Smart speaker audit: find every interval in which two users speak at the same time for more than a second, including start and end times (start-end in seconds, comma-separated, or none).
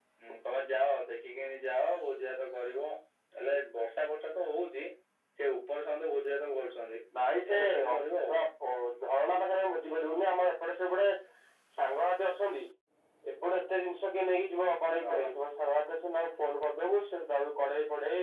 none